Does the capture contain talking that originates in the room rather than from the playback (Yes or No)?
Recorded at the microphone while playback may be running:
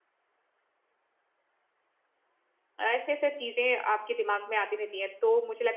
Yes